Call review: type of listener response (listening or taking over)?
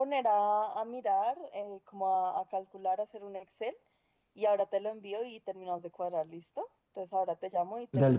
taking over